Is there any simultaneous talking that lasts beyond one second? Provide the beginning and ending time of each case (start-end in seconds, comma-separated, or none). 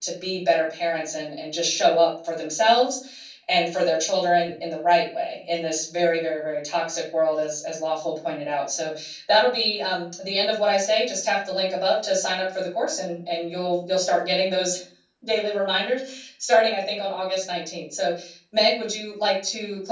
none